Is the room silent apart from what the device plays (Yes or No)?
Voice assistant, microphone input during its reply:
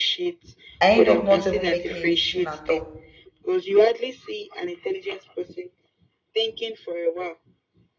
No